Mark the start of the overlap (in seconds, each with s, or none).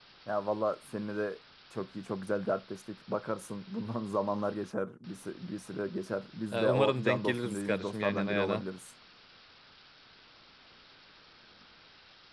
6.5 s